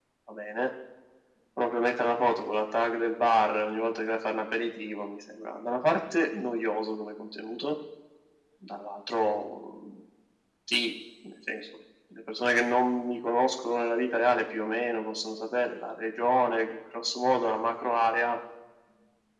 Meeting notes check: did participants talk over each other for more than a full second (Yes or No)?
No